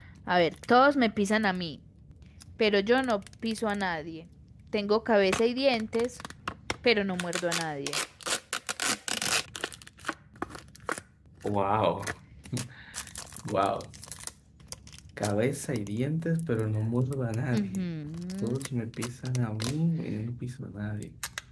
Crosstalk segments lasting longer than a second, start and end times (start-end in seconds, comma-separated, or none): none